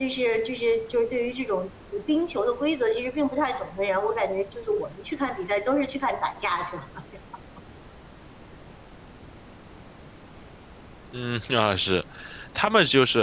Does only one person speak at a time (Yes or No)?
Yes